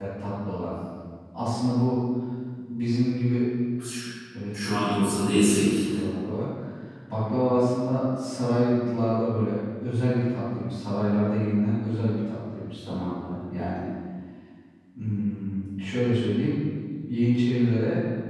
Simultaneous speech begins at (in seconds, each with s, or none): 4.6 s